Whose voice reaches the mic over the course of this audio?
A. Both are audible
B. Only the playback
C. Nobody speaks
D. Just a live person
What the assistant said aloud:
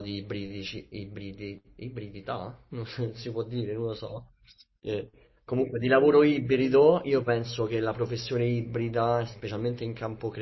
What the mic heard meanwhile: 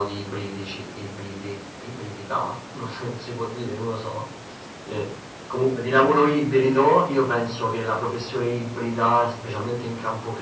B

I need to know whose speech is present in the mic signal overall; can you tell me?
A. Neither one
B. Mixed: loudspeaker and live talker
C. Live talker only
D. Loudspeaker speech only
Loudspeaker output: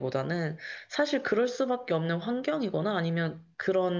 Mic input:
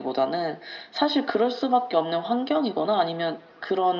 D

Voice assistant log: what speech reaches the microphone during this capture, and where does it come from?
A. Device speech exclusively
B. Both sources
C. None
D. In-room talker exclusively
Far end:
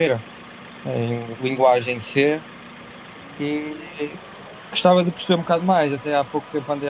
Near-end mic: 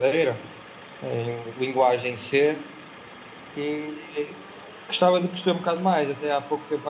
A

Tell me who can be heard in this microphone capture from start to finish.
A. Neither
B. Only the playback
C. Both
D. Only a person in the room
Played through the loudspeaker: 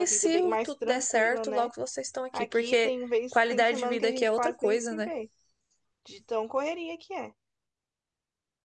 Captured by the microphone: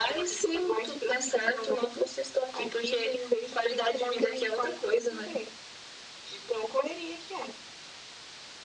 B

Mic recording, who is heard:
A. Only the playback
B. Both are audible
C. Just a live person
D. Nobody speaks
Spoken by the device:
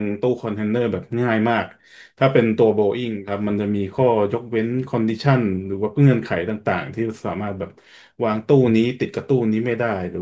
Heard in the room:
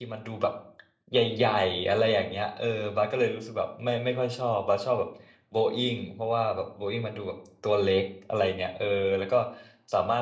C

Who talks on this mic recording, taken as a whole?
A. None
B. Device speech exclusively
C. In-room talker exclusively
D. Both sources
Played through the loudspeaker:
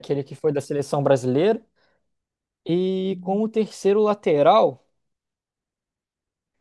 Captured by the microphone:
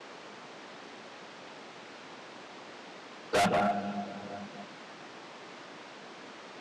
C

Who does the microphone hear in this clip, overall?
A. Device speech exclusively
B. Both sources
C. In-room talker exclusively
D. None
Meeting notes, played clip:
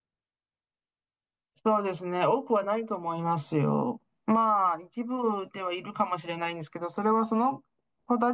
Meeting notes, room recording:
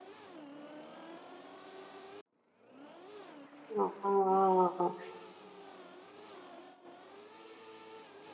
C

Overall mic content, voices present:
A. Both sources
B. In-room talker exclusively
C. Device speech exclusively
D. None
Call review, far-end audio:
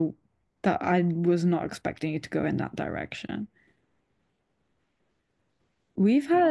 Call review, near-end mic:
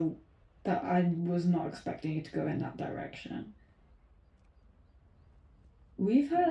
C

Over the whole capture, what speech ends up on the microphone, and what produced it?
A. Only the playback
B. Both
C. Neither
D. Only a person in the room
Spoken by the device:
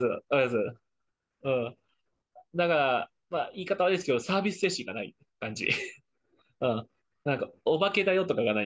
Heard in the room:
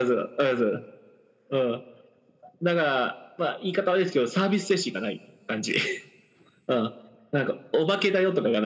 A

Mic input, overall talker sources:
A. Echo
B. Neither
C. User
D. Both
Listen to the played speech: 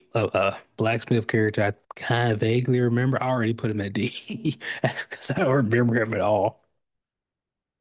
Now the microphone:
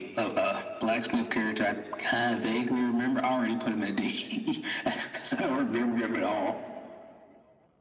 A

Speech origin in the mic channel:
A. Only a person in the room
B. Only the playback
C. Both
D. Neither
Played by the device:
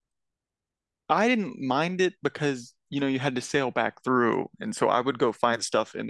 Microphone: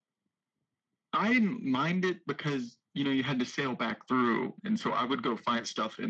B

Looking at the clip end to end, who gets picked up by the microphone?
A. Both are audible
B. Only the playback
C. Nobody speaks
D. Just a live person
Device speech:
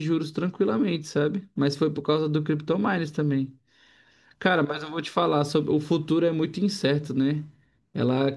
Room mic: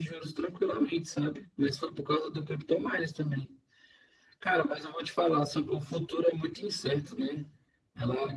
B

